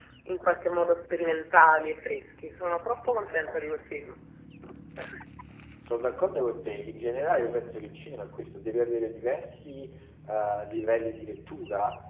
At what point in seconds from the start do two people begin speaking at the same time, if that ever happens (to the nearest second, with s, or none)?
none